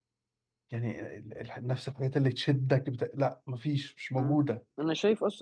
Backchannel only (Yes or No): No